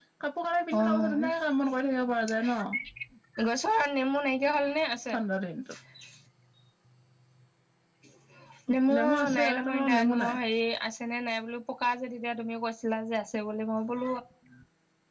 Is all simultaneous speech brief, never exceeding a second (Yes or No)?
No